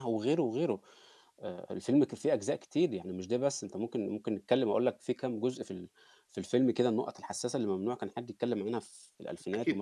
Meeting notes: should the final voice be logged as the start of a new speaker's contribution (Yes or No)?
Yes